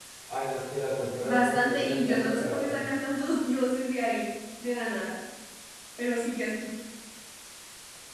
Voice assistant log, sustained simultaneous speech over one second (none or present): present